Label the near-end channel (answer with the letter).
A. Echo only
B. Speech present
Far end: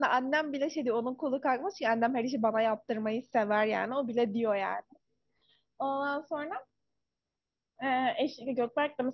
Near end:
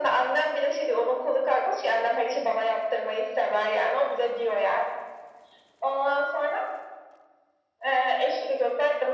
A